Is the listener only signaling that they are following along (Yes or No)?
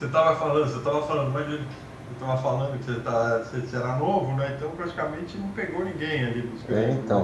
No